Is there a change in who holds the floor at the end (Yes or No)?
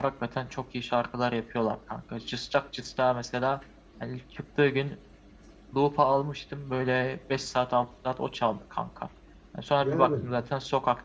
No